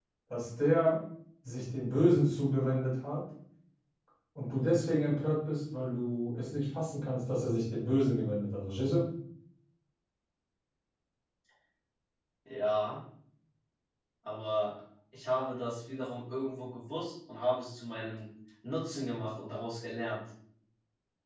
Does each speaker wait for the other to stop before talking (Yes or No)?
Yes